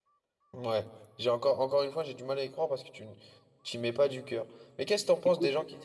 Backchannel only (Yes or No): Yes